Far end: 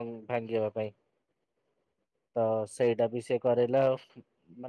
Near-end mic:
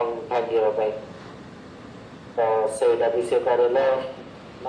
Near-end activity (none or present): none